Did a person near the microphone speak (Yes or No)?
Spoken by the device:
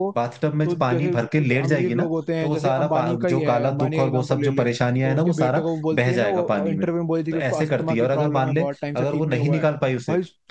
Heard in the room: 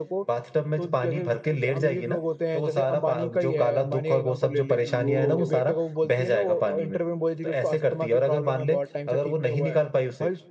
Yes